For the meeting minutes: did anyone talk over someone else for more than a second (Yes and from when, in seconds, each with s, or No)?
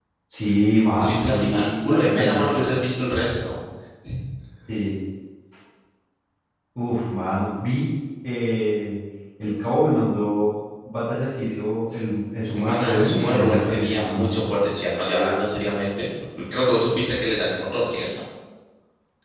Yes, from 1.0 s